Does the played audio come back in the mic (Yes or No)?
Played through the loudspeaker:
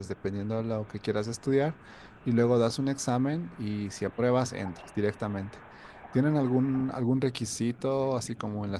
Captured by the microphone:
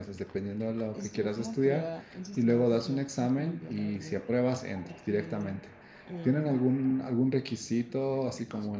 Yes